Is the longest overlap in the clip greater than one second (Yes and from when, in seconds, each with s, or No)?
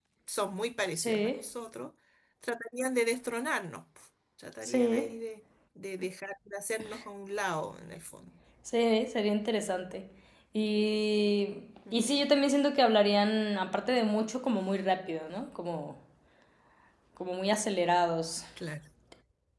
No